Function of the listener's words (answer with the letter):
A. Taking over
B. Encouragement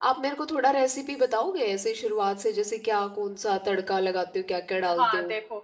A